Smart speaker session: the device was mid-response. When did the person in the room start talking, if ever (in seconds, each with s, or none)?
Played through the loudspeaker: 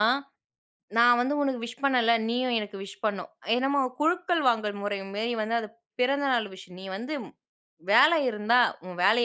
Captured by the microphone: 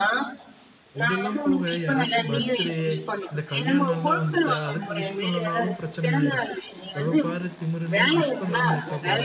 1.0 s